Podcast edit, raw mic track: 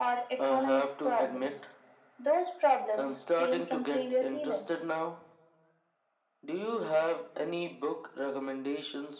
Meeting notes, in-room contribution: none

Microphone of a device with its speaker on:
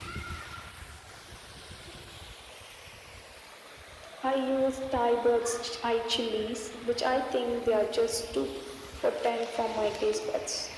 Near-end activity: none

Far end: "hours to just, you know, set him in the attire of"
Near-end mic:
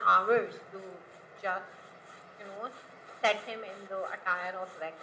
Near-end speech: none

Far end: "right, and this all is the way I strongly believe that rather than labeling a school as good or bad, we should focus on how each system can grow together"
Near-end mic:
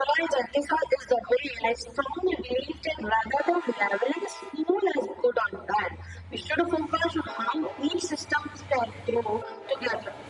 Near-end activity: none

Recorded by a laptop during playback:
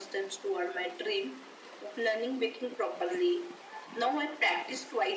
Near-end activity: none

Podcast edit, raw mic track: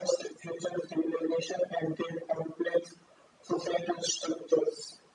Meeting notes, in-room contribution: none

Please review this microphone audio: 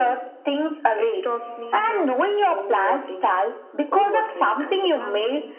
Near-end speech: present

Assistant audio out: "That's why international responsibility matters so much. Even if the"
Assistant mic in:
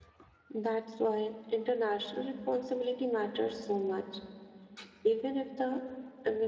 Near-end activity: none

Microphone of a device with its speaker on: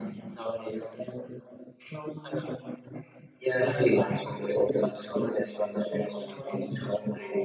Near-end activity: none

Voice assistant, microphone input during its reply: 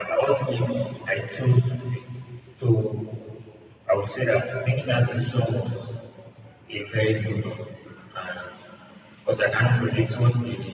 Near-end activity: none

